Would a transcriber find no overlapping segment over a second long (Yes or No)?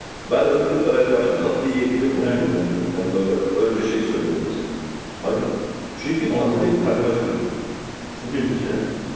Yes